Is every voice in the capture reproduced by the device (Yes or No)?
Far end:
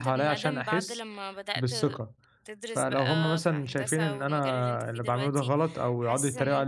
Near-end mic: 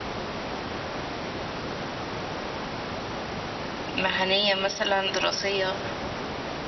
No